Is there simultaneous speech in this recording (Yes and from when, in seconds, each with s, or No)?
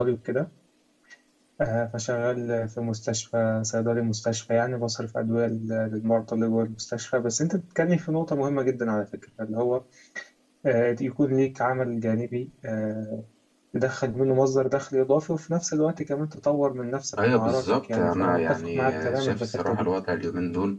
Yes, from 17.2 s